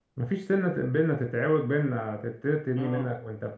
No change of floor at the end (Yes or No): Yes